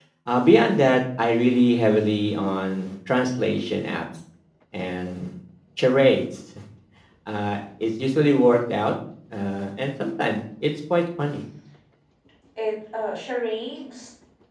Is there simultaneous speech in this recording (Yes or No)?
No